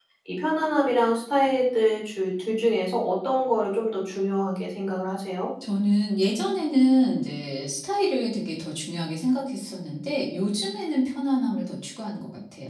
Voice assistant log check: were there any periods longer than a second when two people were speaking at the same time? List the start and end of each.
none

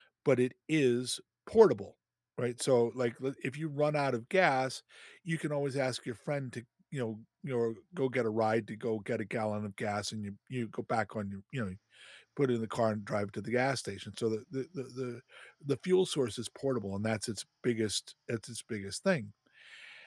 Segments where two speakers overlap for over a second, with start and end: none

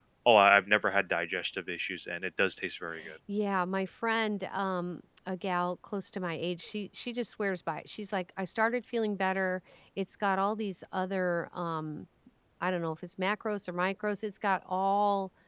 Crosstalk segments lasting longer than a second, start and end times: none

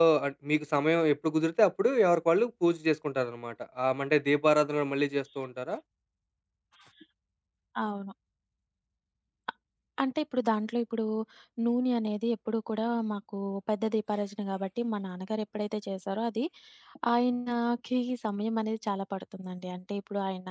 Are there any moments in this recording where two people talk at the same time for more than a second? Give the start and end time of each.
none

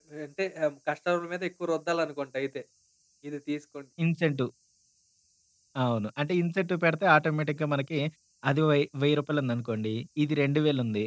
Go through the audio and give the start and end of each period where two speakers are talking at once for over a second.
none

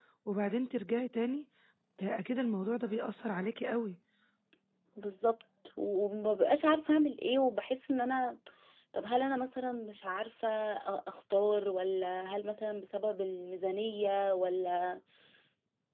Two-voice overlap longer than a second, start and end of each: none

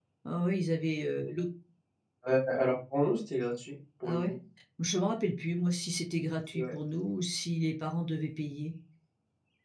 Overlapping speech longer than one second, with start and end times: none

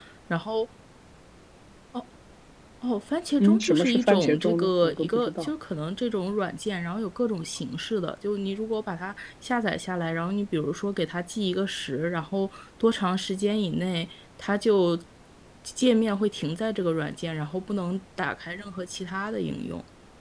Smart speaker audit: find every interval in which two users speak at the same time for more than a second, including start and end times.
3.4-5.5

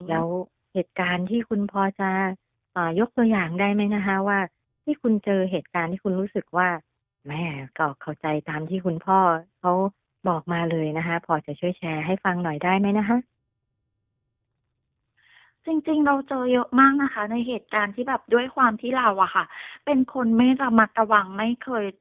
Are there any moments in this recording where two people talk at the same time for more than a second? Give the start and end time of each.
none

